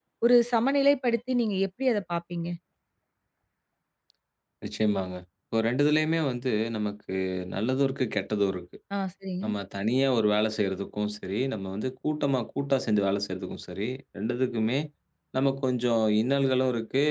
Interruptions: none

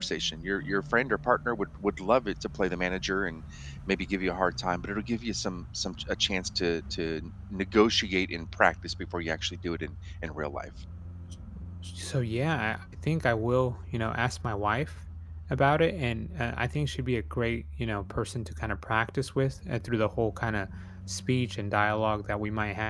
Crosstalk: none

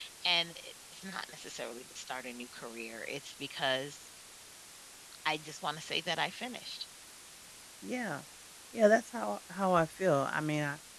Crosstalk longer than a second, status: none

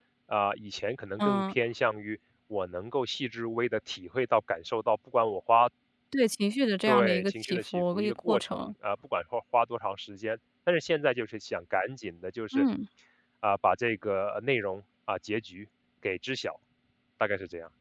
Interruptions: present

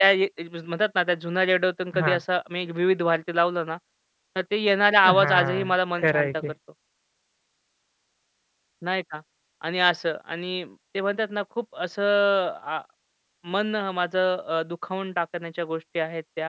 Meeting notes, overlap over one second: present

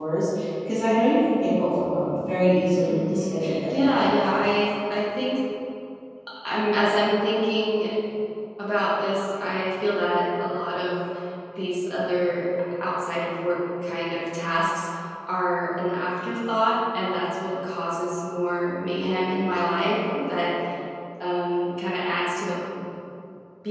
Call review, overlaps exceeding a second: present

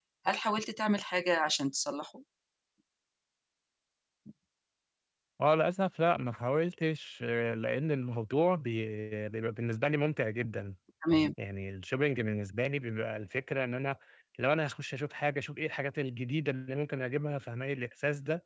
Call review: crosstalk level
none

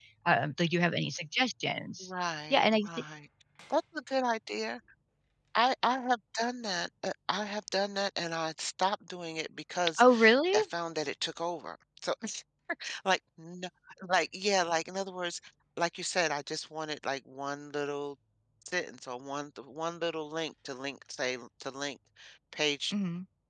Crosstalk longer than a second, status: none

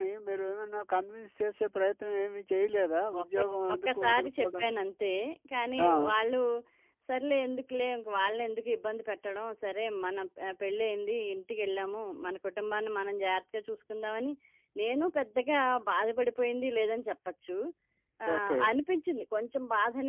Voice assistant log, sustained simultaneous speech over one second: present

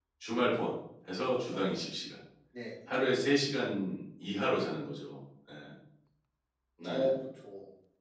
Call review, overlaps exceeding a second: none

